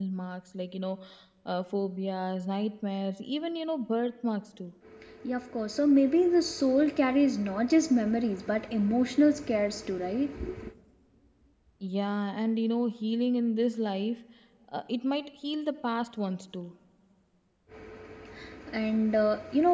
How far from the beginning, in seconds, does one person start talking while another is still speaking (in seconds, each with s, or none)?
none